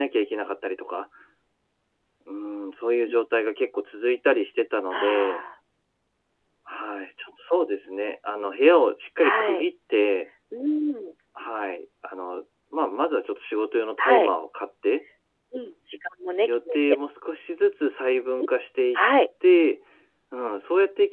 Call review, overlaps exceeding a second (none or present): none